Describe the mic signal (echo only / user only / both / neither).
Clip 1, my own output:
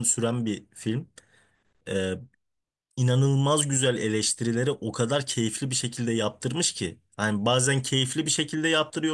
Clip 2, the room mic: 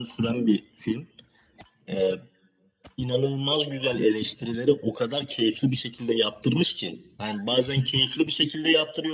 echo only